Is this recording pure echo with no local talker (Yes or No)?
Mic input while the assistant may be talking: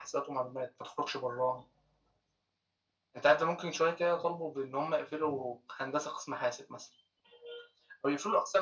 Yes